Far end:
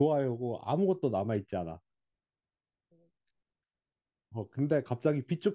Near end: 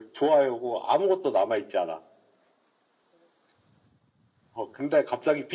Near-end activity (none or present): none